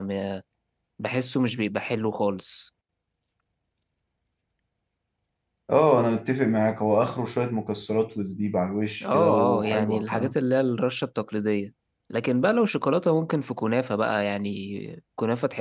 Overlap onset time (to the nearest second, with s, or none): 9 s